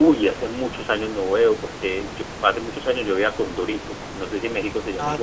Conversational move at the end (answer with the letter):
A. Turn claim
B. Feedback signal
A